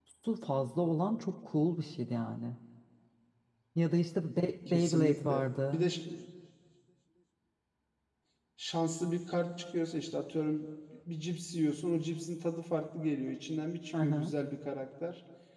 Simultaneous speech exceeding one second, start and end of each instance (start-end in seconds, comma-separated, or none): 4.7-5.9